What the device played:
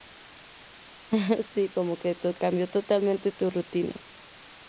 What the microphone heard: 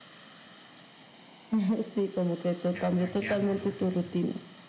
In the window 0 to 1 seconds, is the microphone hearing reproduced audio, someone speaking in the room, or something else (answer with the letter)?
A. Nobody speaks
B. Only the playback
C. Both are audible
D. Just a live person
A